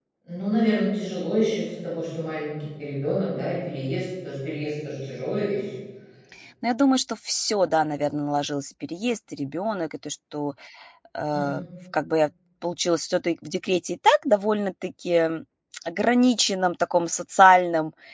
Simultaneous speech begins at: none

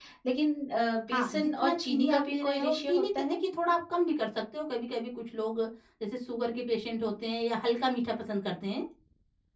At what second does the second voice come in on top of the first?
1 s

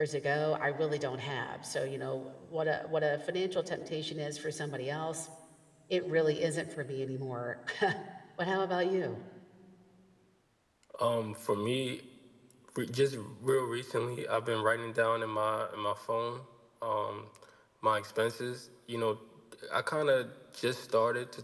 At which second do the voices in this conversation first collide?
none

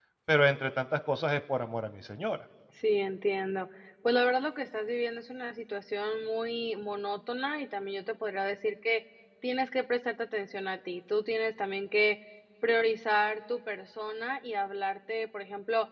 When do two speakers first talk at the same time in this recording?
none

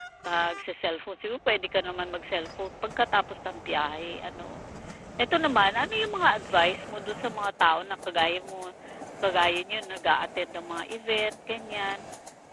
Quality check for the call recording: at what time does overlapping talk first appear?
none

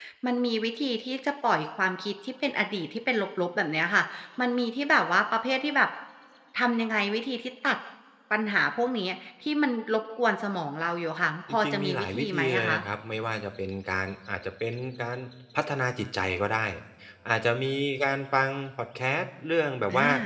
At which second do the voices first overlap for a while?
11 s

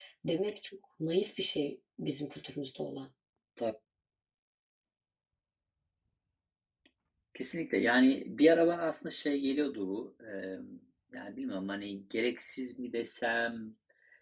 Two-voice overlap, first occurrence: none

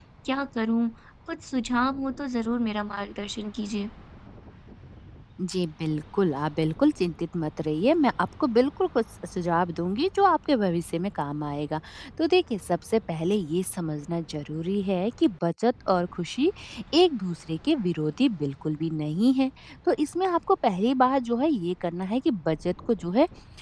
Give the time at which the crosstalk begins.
none

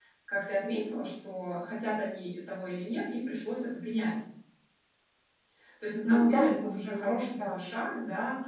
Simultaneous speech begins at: 6 s

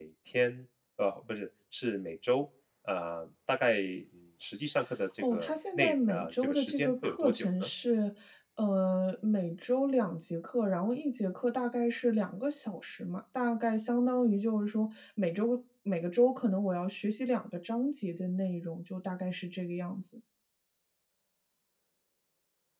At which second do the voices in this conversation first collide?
5 s

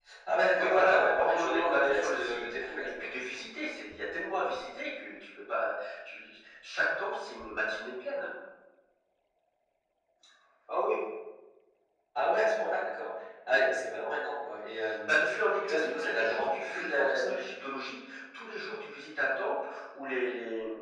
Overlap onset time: 1 s

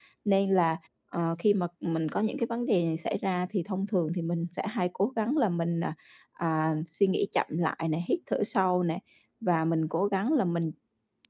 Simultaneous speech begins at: none

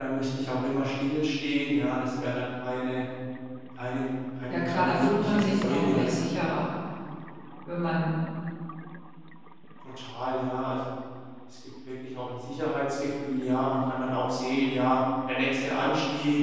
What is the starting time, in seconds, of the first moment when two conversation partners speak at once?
4 s

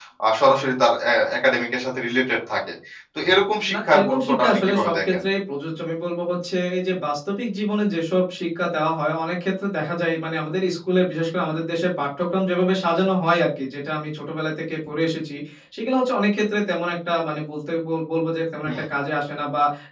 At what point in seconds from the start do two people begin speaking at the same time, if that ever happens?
4 s

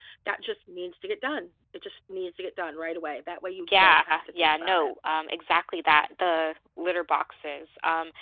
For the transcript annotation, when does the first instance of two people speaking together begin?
4 s

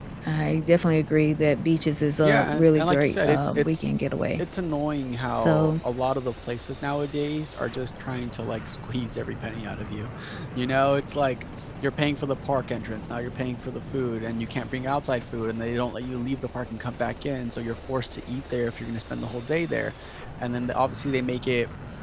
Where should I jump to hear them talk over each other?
2 s

